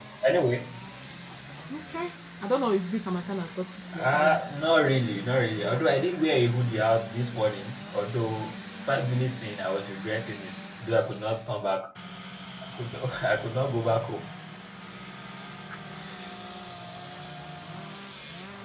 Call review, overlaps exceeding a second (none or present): none